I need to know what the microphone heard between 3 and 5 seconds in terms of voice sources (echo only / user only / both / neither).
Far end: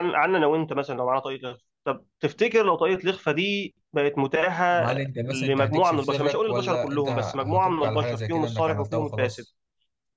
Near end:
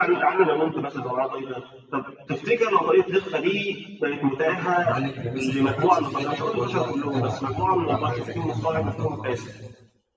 echo only